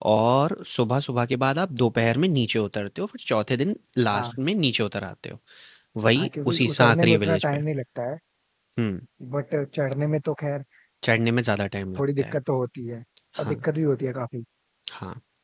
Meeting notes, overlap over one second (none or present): present